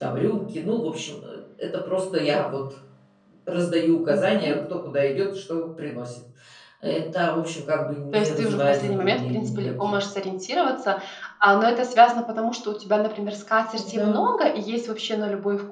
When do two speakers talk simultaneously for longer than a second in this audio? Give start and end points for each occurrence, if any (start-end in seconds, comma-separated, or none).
8.1-9.9